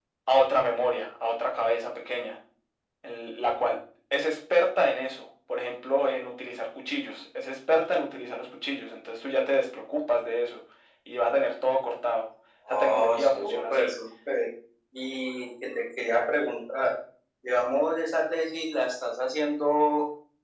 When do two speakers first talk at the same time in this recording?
12.7 s

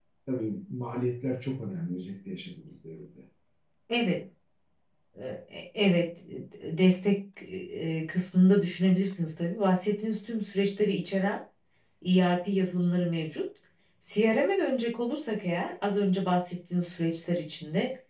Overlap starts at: none

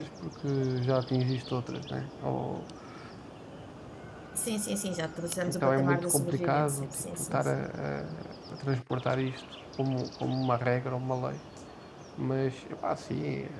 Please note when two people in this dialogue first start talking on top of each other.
5.5 s

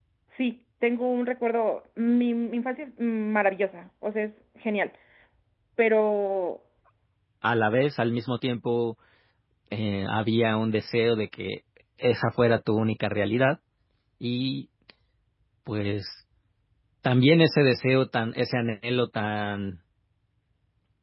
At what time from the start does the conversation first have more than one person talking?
none

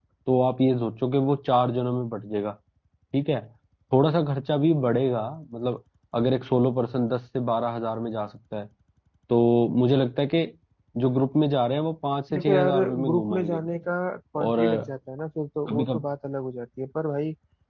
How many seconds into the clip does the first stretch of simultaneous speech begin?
12.3 s

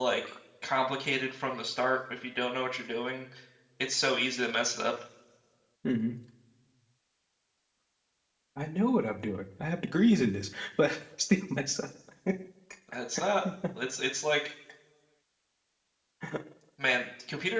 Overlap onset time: none

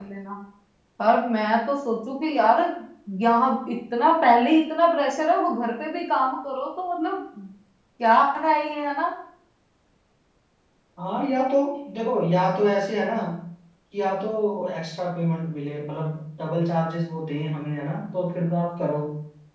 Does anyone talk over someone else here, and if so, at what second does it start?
none

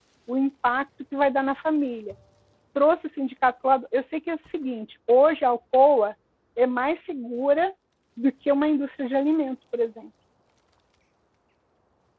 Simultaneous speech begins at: none

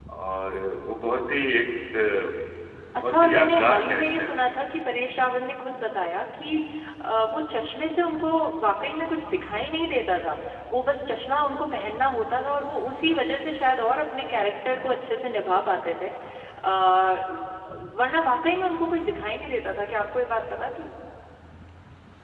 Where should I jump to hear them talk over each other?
3.0 s

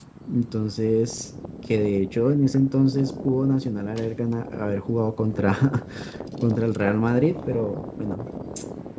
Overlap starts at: none

